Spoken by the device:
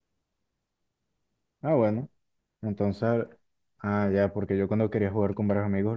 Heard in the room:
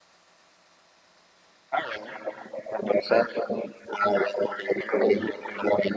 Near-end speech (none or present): none